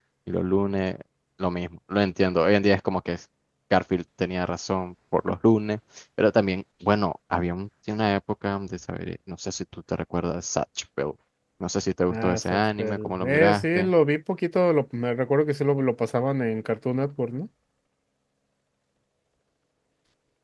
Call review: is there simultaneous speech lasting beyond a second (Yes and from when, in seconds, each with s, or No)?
Yes, from 12.1 s